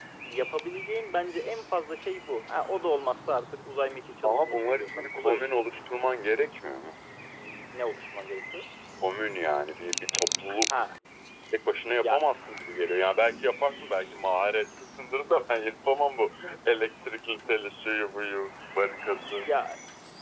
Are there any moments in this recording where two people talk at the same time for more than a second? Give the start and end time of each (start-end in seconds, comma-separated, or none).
4.2-5.5